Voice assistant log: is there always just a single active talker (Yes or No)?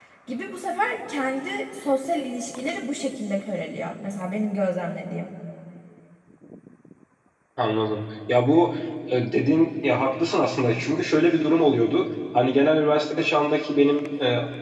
Yes